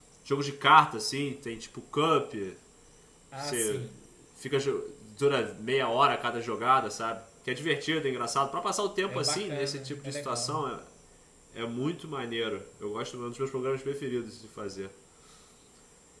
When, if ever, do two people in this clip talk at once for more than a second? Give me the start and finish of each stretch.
9.1-10.7

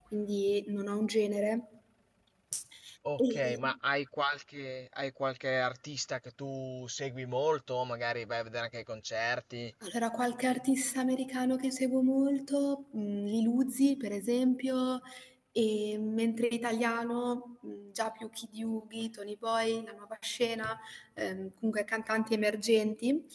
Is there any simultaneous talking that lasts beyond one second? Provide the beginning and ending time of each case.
none

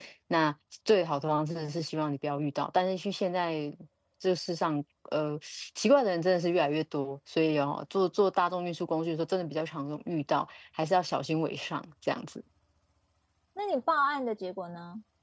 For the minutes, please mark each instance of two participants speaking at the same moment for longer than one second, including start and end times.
none

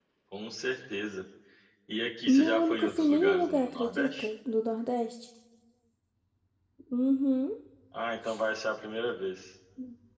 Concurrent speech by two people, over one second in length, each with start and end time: 2.3-4.3

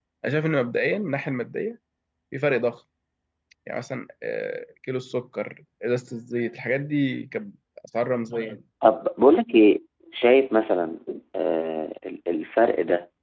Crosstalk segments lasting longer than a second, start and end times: none

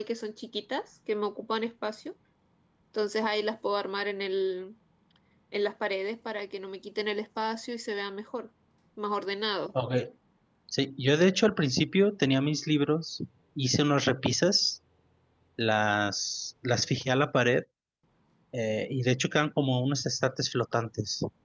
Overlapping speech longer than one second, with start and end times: none

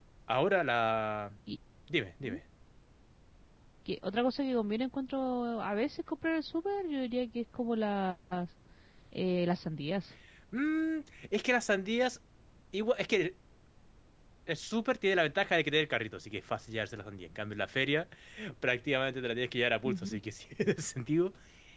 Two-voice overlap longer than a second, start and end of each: none

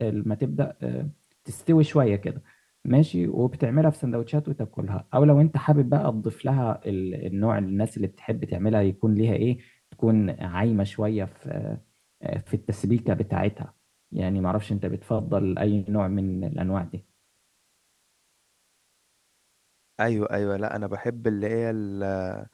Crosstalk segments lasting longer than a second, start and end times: none

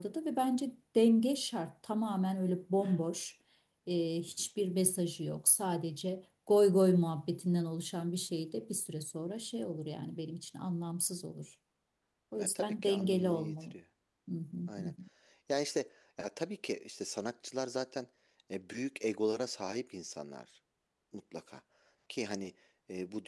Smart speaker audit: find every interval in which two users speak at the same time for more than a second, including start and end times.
12.4-13.7

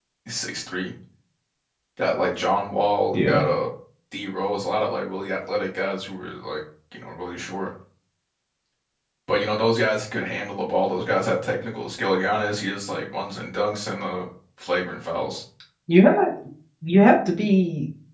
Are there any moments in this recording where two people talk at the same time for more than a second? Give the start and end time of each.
none

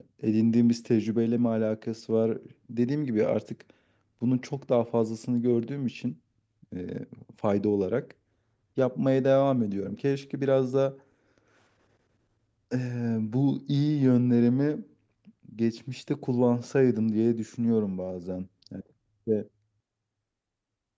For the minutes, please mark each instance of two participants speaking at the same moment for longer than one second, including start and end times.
none

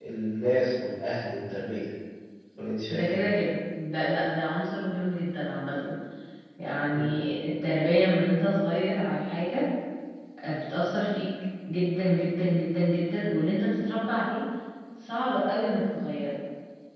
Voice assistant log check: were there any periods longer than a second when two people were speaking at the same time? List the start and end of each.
none

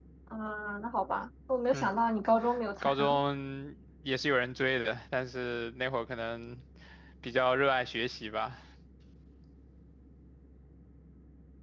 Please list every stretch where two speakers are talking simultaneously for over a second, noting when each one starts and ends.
none

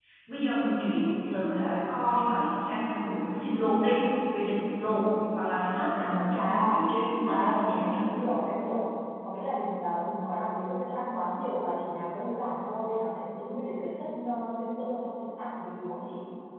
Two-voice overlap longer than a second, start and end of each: none

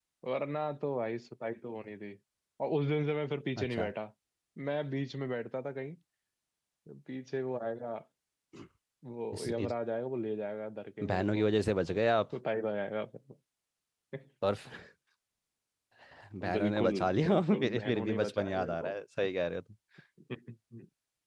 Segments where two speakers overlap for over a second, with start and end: 16.6-18.9

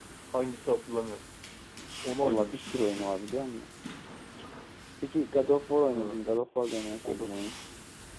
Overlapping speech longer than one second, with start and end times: none

